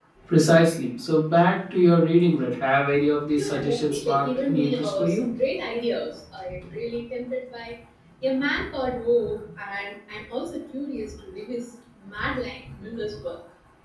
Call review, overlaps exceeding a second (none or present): present